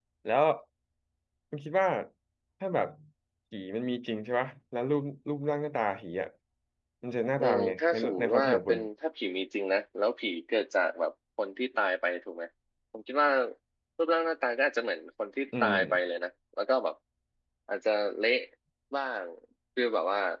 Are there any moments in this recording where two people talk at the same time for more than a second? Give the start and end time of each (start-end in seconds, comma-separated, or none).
7.4-8.8